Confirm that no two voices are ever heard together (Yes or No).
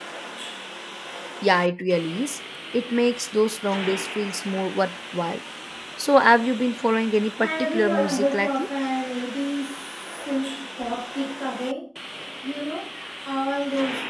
No